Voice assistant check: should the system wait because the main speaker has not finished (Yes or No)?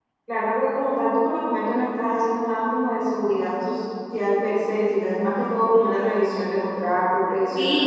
No